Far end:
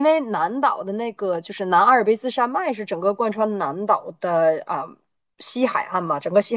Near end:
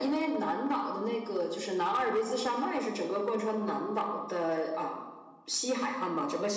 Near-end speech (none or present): none